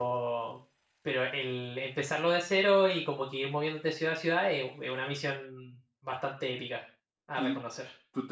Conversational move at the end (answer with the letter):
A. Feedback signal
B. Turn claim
B